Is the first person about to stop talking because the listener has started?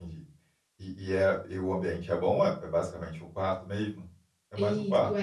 Yes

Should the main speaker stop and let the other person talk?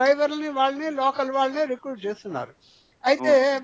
No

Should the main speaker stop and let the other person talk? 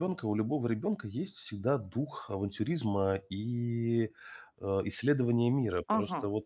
Yes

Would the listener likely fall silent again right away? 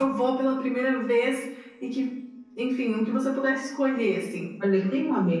No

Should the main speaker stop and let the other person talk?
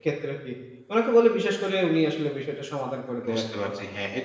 Yes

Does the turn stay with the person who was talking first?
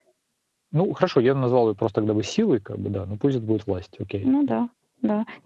No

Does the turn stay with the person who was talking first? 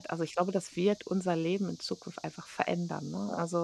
Yes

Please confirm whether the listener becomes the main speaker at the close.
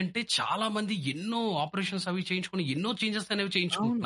Yes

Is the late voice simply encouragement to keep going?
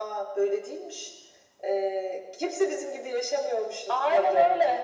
No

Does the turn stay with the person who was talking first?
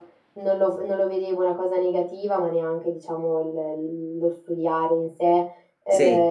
Yes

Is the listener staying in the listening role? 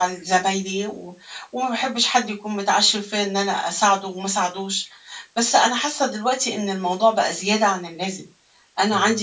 Yes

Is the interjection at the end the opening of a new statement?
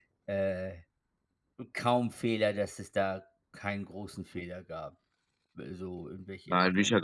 Yes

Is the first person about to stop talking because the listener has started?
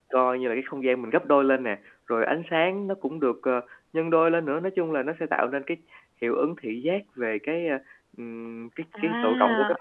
Yes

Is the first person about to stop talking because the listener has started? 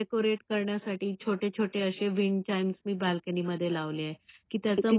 No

